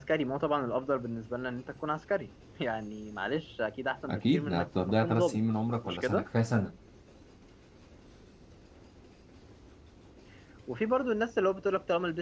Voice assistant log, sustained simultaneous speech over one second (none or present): present